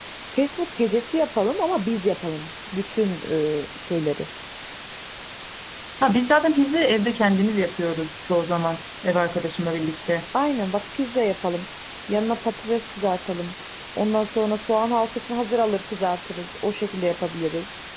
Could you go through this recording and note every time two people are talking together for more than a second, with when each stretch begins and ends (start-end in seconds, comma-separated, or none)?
none